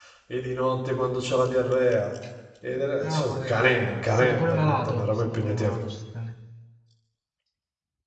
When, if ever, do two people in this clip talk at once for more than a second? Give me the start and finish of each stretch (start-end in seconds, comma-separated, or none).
3.0-5.7